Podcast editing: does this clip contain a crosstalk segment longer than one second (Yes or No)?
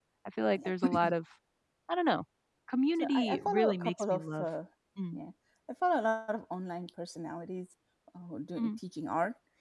Yes